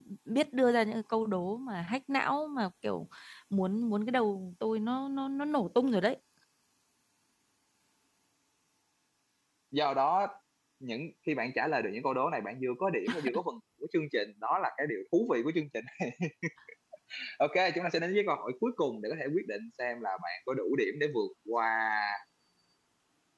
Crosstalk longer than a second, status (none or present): none